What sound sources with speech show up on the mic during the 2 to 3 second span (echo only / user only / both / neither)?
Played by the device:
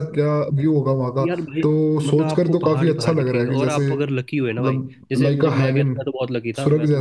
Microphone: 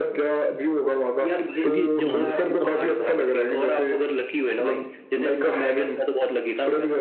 both